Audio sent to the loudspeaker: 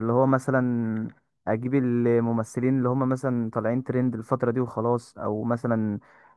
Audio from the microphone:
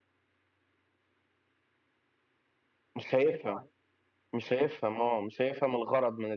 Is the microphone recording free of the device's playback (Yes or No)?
Yes